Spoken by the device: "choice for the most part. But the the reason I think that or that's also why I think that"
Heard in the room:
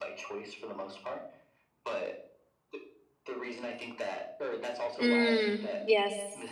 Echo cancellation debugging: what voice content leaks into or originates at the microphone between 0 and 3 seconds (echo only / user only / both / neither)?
echo only